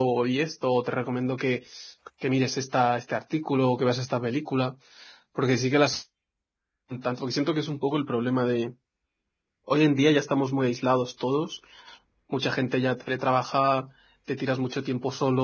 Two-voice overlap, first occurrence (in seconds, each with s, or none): none